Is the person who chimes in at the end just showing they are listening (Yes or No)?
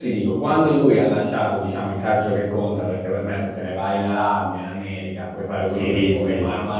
Yes